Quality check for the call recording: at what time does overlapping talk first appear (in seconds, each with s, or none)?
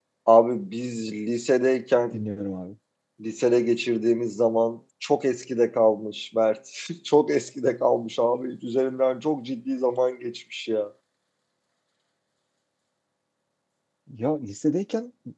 none